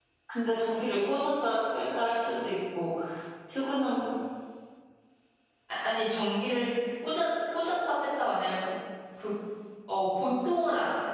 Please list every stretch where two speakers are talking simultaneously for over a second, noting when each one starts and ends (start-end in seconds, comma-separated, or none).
none